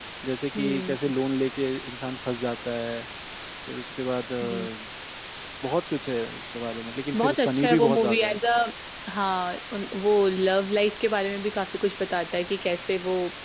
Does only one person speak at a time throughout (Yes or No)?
No